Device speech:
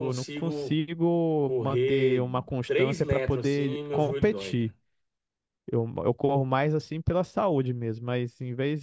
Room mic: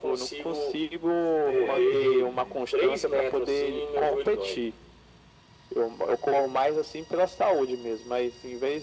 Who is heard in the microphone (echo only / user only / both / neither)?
both